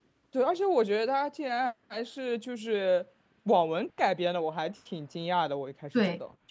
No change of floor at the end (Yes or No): No